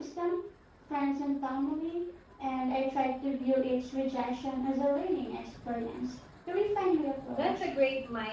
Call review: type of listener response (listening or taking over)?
taking over